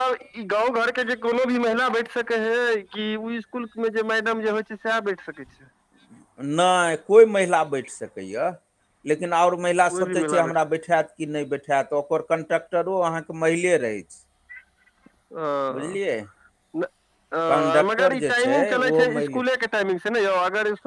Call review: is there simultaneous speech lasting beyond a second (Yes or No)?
Yes